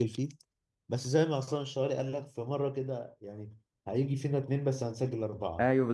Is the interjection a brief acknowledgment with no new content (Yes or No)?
No